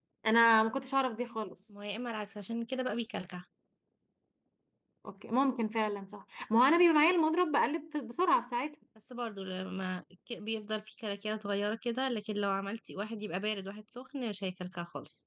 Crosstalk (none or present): none